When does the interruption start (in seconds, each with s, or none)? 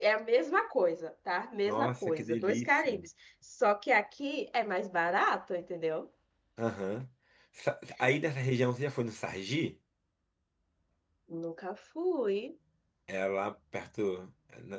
1.7 s